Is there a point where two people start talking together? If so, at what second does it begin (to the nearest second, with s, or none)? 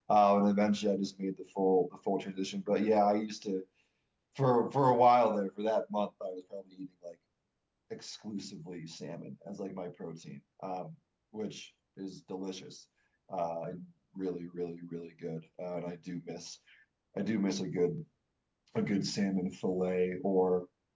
none